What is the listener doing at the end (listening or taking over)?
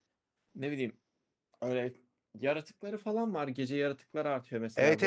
taking over